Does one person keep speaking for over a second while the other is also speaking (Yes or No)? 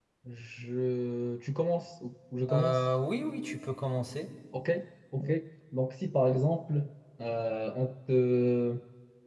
No